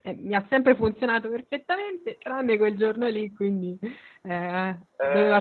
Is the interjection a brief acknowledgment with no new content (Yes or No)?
No